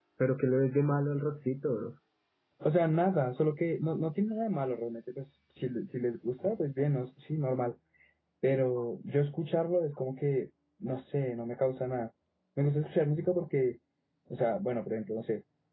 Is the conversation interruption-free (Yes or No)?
Yes